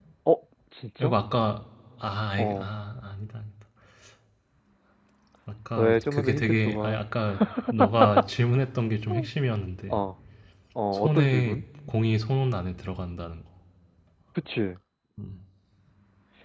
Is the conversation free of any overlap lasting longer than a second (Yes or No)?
No